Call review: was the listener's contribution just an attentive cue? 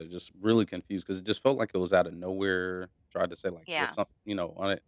Yes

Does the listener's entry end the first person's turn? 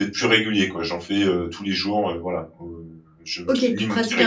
Yes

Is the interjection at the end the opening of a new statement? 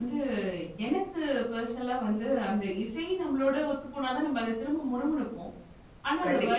No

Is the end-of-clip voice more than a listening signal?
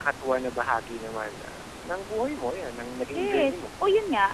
Yes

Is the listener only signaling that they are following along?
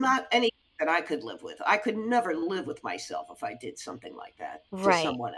No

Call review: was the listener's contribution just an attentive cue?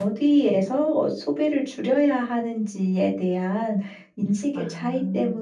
Yes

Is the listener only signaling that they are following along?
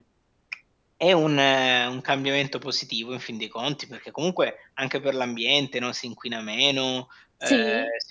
Yes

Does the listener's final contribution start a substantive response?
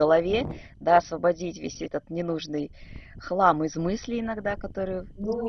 Yes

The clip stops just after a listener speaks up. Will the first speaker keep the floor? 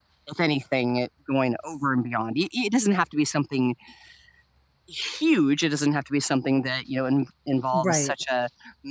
Yes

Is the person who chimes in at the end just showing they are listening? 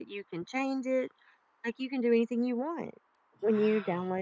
Yes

